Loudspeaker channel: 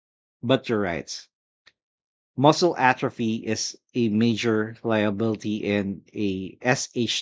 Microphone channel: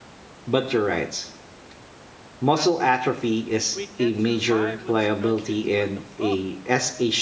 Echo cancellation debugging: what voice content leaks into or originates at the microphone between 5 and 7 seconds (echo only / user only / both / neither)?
both